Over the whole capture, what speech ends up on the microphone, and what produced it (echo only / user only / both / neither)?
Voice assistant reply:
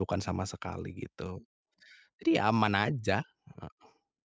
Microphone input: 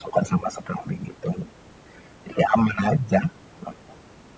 echo only